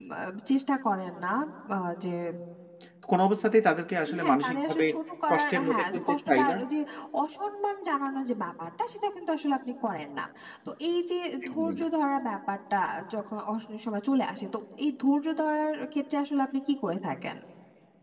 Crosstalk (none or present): present